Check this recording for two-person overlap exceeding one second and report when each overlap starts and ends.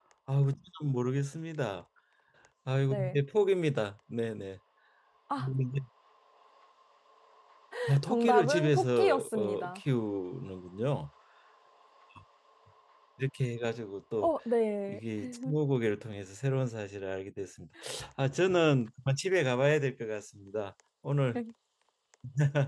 8.1-9.8

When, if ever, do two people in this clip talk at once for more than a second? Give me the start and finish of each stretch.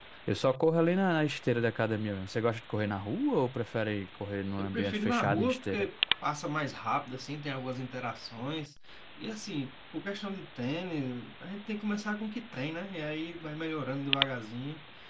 4.6-5.9

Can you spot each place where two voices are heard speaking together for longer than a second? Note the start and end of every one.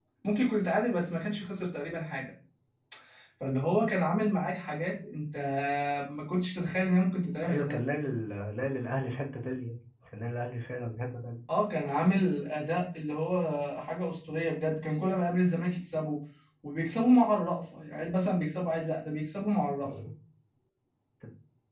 none

